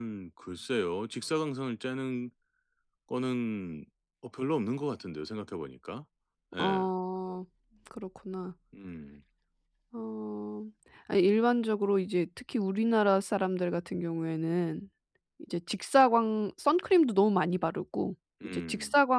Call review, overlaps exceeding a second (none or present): none